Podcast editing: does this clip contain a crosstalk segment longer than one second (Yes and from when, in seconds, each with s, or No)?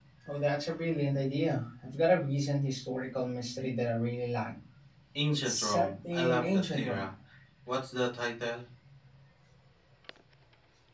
Yes, from 5.4 s